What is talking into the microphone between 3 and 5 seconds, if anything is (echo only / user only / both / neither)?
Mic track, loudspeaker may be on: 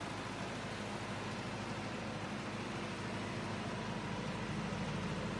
neither